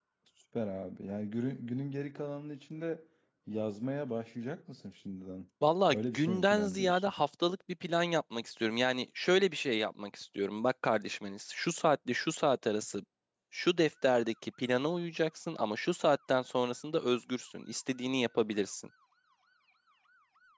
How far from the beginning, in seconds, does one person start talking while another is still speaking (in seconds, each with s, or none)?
5.9 s